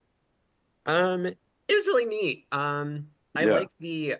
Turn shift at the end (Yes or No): No